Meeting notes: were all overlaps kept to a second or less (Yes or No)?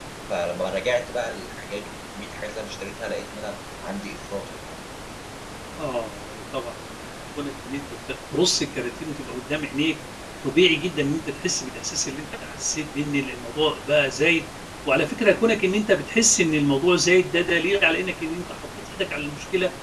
Yes